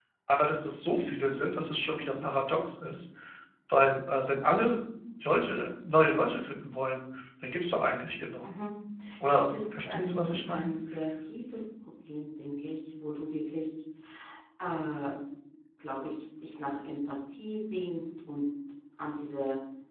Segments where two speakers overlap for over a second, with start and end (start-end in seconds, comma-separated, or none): 9.3-10.7